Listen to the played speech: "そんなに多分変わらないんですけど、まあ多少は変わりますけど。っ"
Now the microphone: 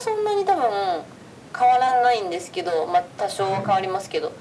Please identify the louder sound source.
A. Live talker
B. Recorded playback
B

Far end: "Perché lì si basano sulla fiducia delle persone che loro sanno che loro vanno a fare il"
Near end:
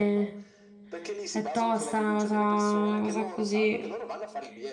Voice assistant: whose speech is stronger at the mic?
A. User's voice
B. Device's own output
A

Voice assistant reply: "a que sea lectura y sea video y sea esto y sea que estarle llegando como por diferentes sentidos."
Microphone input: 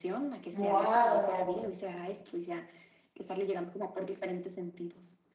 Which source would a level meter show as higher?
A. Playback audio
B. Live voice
B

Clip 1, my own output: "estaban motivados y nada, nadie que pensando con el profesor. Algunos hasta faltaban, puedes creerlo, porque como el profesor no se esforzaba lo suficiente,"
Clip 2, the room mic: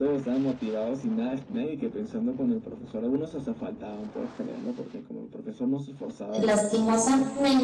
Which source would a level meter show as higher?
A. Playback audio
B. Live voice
B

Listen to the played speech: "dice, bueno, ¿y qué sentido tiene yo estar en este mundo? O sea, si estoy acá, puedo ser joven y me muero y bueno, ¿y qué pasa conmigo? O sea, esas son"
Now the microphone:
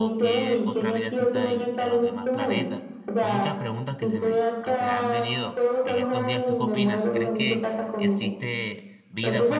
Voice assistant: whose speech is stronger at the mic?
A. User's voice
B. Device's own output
B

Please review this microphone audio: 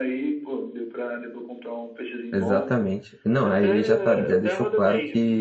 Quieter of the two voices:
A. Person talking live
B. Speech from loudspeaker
B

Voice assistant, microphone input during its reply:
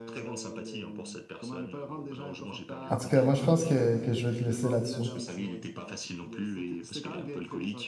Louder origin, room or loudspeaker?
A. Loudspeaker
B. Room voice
B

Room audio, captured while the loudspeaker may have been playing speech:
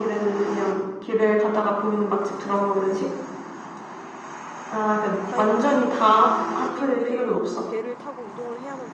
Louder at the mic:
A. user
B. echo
B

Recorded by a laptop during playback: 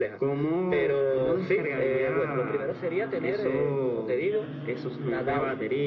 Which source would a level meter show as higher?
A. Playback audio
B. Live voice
A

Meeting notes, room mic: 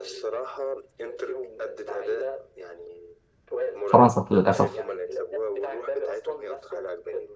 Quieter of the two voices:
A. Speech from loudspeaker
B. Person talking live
A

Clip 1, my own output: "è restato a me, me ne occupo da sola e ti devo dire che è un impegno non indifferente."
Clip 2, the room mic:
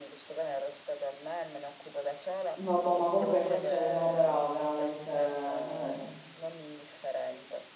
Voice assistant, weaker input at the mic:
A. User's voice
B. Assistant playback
B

